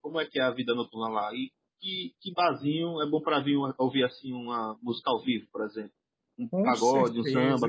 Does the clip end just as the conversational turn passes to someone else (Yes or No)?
Yes